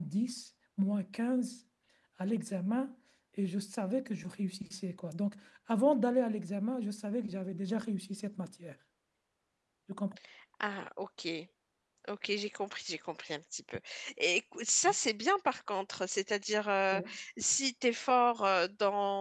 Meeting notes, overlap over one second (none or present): none